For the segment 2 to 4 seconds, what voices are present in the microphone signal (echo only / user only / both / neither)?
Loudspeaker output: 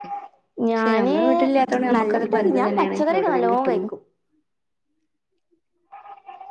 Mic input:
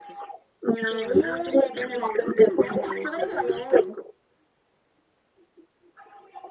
echo only